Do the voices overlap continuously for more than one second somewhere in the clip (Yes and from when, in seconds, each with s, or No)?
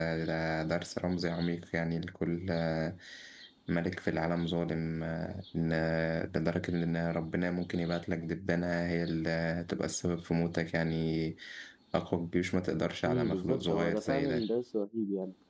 Yes, from 13.0 s